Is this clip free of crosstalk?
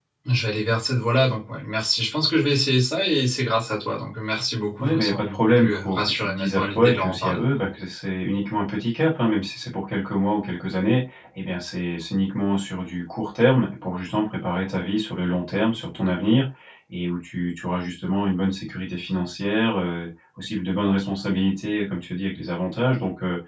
No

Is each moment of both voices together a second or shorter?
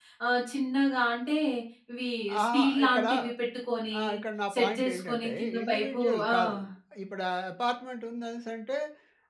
No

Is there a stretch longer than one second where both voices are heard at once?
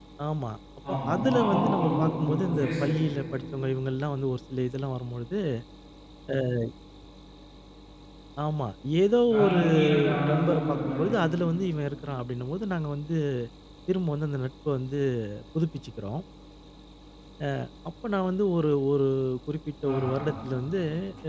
Yes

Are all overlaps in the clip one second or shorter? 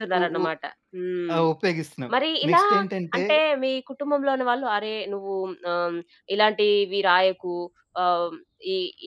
Yes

